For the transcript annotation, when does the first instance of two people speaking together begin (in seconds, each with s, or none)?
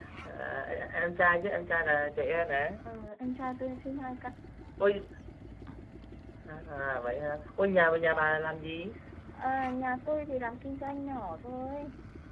none